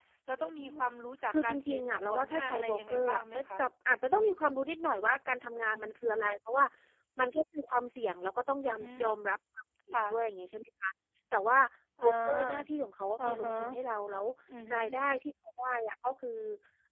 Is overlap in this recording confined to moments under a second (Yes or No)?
No